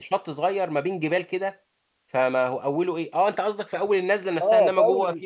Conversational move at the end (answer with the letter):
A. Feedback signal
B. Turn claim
B